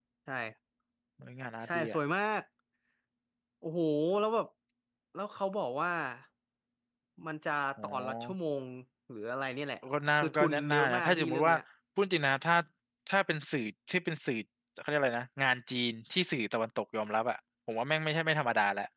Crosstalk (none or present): present